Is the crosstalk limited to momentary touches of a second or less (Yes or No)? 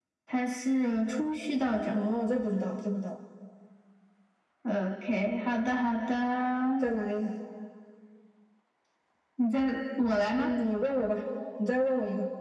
Yes